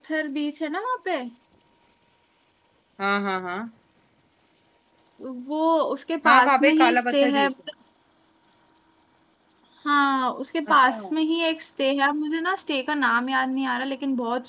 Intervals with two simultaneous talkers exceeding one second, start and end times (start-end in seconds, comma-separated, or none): 6.3-7.5